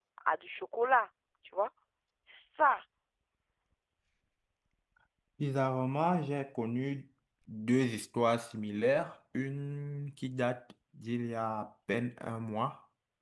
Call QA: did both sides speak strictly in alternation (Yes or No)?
Yes